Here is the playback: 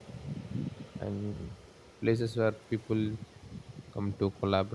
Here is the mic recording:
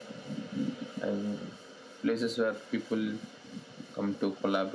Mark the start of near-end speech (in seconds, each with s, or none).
none